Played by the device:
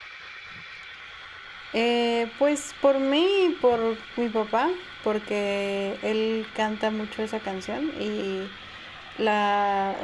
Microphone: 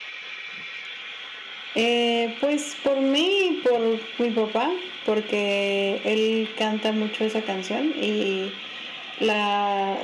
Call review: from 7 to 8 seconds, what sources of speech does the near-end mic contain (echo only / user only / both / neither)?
echo only